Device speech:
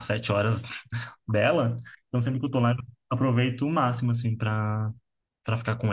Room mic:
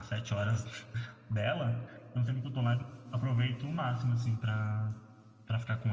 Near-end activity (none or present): none